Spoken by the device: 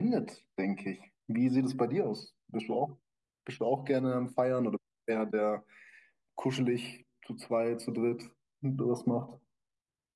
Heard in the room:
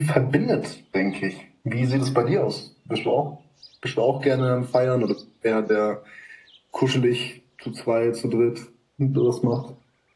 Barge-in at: none

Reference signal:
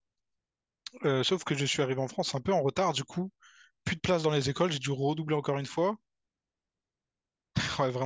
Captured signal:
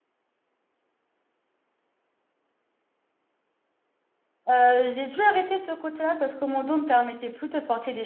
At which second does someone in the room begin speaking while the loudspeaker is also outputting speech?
4.5 s

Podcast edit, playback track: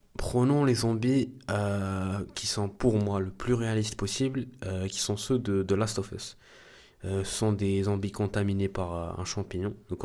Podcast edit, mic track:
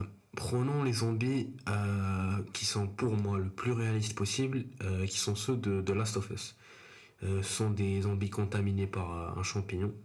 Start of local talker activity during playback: none

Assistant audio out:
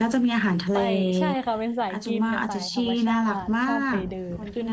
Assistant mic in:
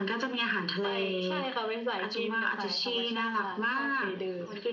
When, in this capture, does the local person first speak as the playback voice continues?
none

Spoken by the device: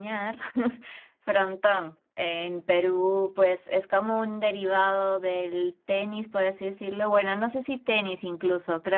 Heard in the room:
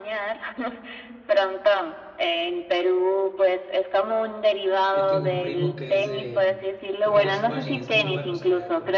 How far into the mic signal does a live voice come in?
4.9 s

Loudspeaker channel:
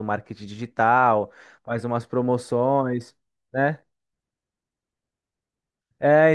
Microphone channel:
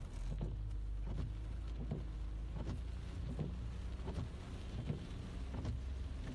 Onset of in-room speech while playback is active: none

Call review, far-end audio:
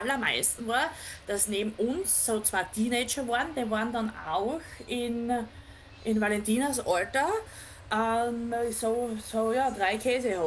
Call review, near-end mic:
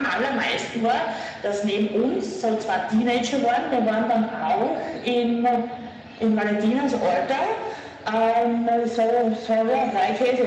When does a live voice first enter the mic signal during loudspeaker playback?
none

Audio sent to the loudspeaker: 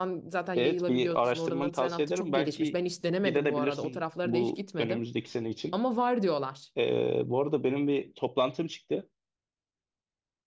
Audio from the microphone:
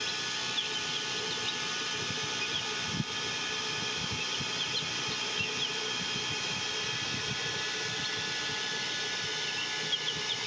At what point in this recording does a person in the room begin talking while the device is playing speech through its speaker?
none

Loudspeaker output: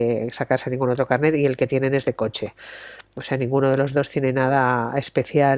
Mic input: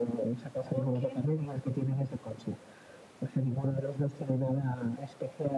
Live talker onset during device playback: 0.7 s

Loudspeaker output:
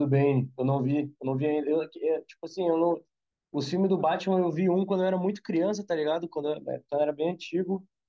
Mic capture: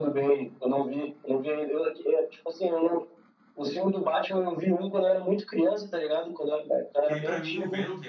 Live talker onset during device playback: 7.0 s

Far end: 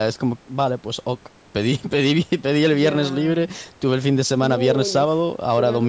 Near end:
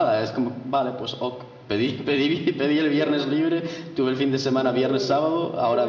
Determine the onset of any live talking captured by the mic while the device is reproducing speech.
none

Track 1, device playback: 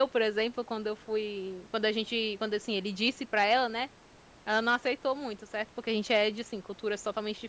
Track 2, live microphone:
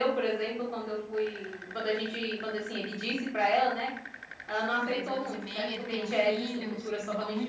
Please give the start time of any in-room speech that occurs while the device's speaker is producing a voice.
4.8 s

